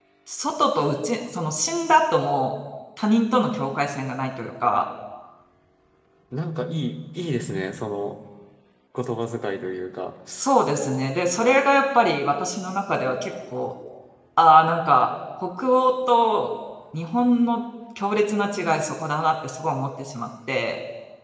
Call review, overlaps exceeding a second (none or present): none